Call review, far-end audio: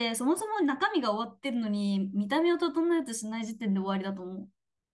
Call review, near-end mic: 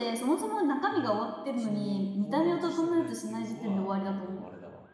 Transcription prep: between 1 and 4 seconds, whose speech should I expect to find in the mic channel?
both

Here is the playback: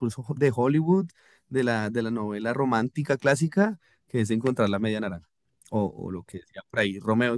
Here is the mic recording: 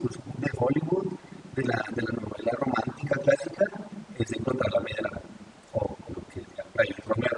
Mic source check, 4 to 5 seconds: echo only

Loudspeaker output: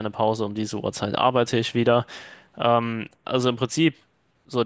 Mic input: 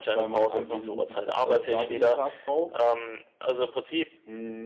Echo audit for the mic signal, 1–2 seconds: both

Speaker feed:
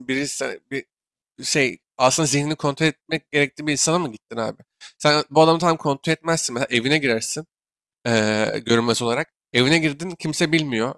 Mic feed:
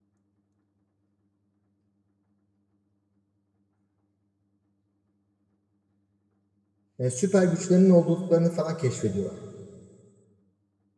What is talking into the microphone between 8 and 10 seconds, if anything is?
user only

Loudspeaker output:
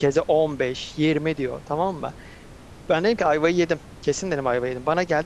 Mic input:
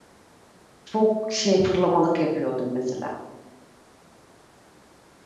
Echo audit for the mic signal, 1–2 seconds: user only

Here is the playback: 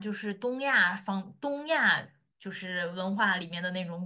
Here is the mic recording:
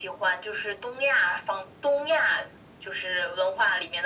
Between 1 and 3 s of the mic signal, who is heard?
echo only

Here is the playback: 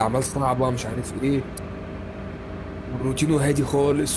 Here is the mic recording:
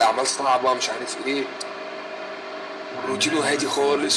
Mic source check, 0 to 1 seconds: echo only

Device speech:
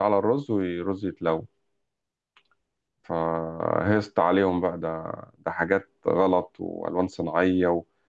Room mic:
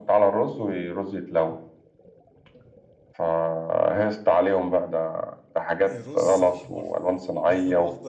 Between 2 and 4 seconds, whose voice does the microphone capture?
echo only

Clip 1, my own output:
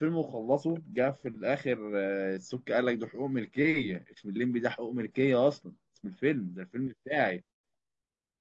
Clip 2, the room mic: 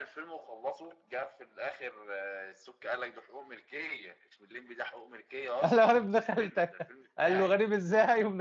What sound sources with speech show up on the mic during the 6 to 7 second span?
both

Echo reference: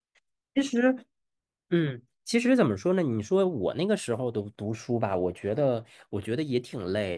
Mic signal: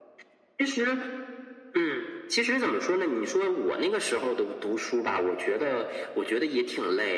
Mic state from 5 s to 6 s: echo only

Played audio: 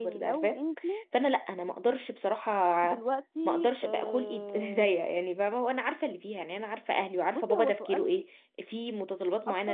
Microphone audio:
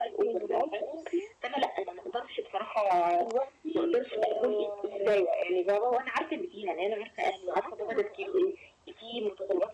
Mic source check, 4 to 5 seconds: echo only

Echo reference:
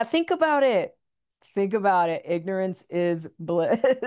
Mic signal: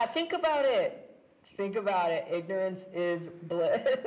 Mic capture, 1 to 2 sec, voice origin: echo only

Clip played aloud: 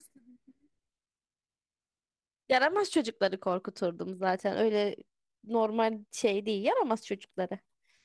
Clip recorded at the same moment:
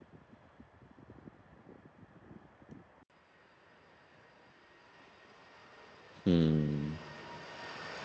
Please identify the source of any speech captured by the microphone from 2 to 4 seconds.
neither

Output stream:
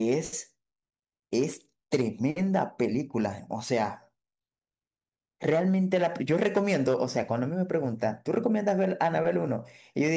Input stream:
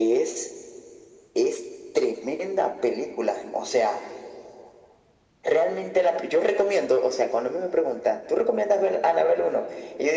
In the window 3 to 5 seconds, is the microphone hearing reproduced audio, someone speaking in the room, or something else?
echo only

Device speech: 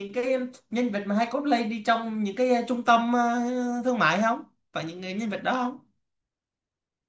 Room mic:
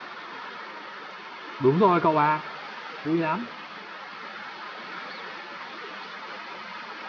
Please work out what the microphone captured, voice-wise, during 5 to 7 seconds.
neither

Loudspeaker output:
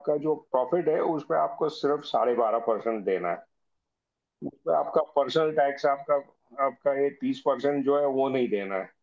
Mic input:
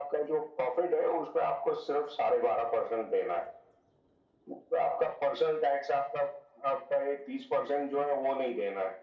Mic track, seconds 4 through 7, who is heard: echo only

